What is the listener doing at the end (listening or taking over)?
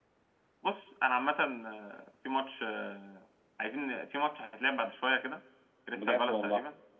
listening